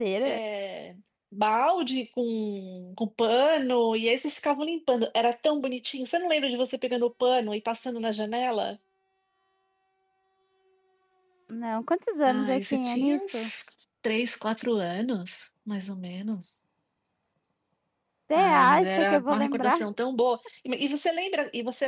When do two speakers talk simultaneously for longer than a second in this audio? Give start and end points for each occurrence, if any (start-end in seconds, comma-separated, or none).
12.3-13.5, 18.4-19.8